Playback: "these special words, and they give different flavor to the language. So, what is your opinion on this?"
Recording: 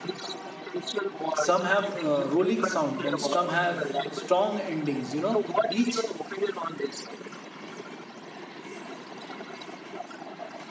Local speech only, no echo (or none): Some have uh, rolling sounds and some have strong endings. You know, each